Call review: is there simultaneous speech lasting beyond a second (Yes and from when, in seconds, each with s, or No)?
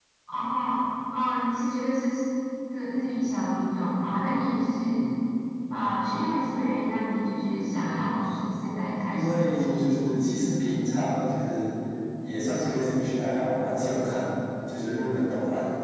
Yes, from 9.1 s